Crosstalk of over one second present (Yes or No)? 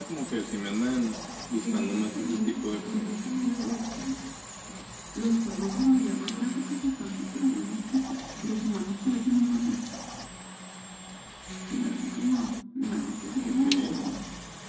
Yes